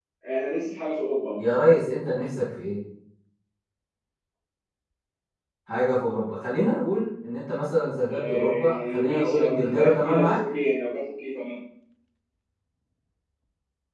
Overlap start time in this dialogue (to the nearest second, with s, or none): 8 s